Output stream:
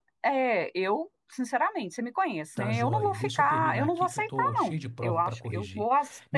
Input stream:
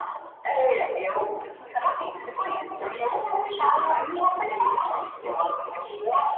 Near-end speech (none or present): present